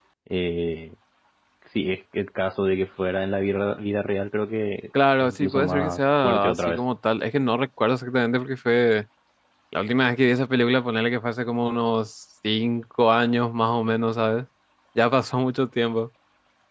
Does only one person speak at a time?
No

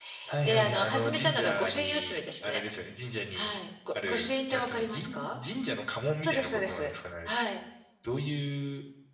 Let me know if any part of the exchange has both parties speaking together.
Yes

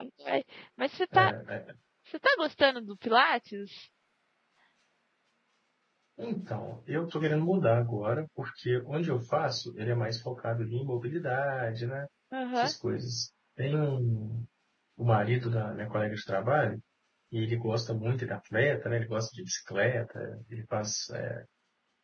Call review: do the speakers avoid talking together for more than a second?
Yes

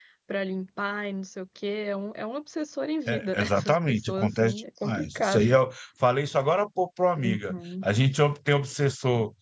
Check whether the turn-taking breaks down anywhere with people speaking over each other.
Yes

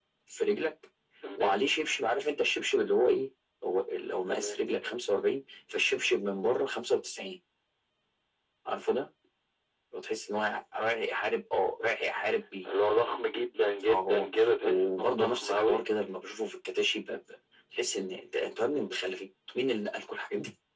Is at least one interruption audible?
Yes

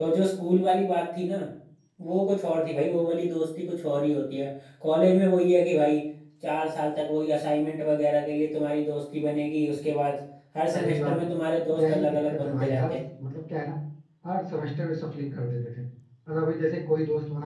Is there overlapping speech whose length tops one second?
Yes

